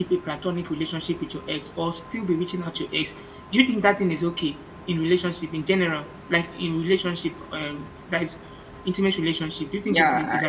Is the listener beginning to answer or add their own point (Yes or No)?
Yes